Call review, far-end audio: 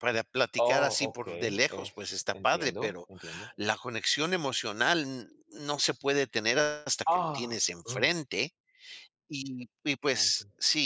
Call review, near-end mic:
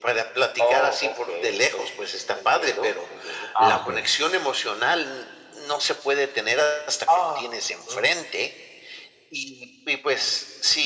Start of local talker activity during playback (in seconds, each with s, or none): 3.5 s